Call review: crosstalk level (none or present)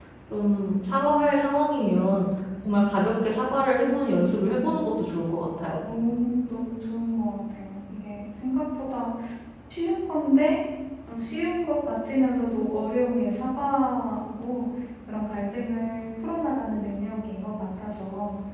none